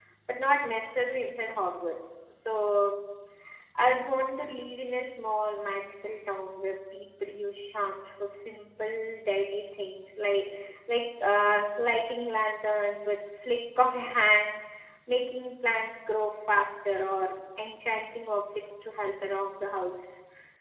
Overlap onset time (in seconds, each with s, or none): none